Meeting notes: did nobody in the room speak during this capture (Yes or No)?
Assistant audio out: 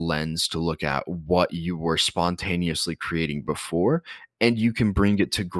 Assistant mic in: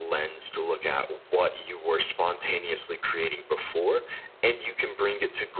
Yes